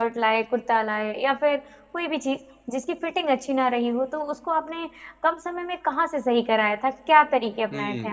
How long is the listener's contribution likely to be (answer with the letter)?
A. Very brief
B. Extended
B